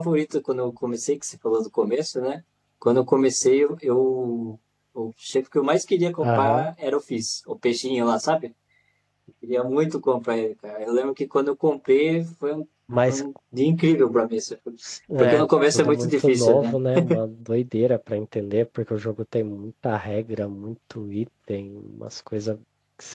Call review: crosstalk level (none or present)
present